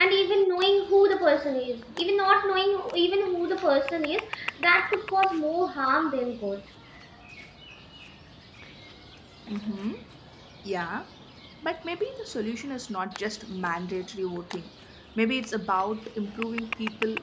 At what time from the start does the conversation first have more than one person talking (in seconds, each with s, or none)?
none